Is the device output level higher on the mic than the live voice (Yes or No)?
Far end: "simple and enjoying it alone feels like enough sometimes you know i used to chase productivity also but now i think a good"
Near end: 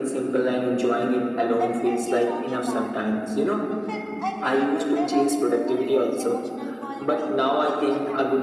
Yes